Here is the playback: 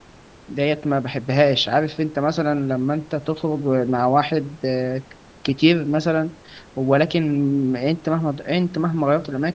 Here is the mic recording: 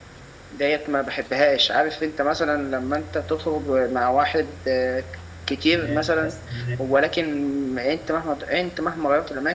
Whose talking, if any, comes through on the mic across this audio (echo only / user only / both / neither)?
both